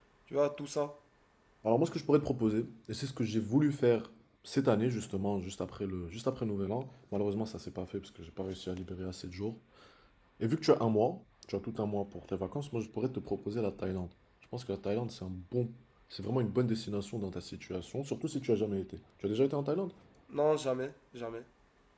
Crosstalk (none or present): none